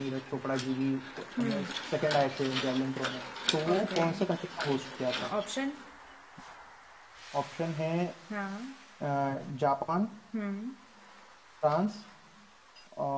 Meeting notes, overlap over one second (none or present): none